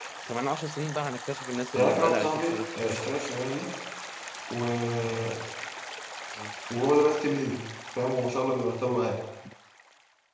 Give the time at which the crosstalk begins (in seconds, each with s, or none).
1.8 s